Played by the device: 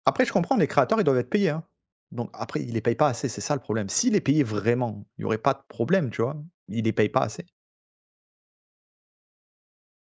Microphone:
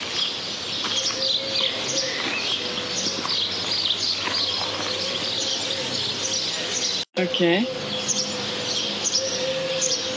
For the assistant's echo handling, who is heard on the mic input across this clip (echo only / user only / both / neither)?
user only